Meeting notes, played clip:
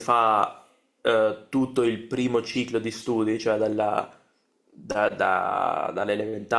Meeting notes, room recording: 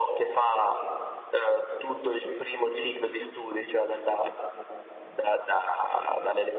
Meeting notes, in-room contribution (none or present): none